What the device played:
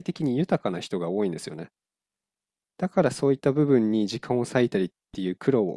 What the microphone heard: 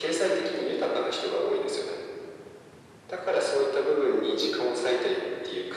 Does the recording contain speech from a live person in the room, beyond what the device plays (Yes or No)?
No